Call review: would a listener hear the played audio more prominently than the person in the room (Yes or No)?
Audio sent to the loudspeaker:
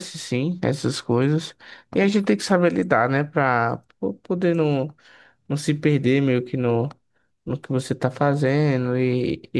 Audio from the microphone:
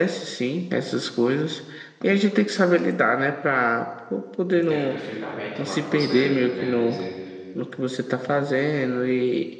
Yes